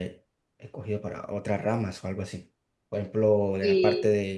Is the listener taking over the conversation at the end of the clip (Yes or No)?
No